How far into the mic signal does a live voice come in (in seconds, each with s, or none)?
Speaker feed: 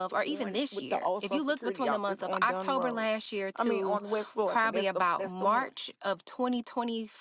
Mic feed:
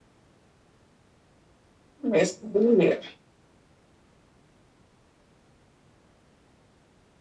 2.1 s